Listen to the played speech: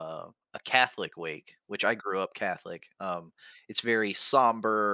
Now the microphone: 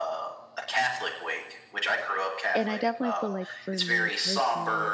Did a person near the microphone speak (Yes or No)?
Yes